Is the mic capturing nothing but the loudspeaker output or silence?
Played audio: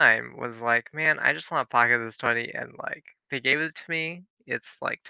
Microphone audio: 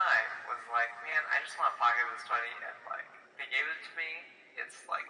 Yes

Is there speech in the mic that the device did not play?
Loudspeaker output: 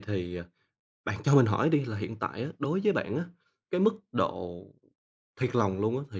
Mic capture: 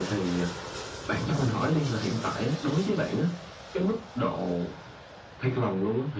No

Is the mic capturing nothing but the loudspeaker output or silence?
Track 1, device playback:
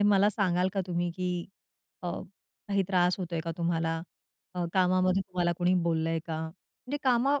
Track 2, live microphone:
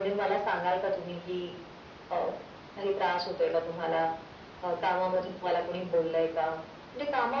Yes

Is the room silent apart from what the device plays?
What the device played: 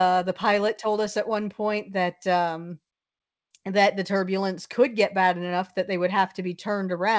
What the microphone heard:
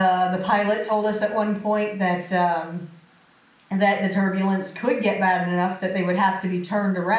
Yes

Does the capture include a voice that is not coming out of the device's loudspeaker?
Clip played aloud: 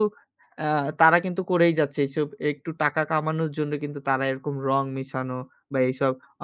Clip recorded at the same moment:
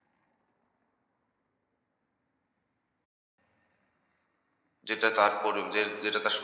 Yes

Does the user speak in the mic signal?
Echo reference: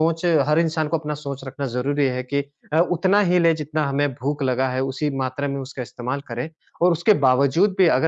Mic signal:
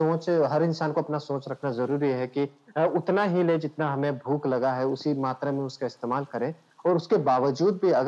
No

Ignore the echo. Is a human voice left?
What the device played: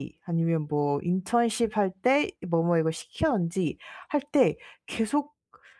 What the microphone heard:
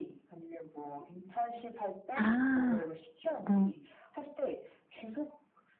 Yes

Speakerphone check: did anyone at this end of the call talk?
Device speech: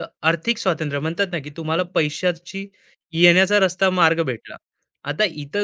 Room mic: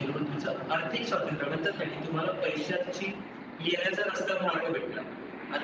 No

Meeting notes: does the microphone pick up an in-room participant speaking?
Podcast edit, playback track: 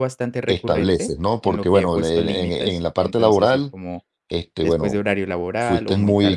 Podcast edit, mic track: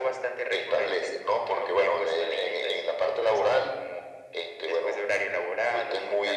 No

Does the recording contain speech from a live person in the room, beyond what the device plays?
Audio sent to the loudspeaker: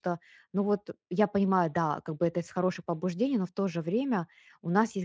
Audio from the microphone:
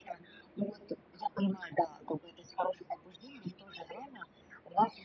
No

